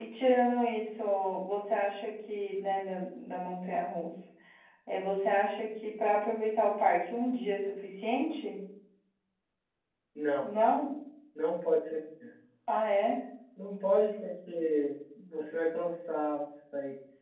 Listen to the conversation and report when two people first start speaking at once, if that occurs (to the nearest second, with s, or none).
none